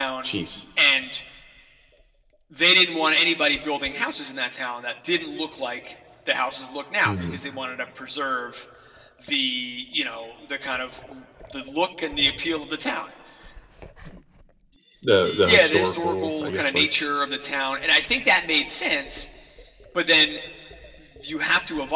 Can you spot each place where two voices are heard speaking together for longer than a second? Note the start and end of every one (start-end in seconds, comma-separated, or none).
15.2-16.9